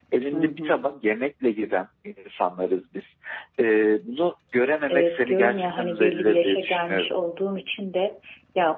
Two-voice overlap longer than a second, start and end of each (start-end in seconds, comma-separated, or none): 4.9-7.1